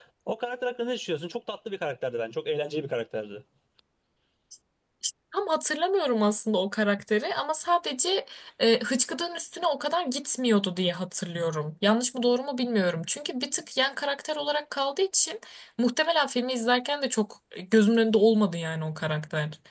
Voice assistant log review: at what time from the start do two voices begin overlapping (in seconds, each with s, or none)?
none